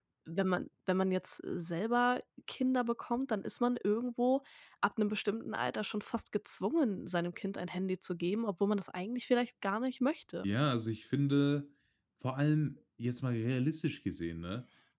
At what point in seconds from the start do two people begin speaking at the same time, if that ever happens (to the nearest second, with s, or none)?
none